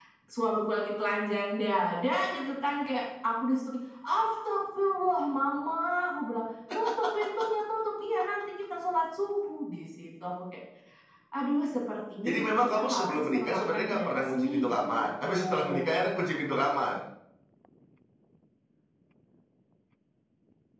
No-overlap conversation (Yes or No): No